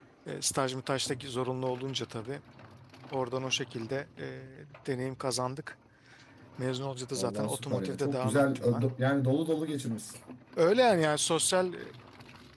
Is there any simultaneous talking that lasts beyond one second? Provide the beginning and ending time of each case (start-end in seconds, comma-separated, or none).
7.2-8.8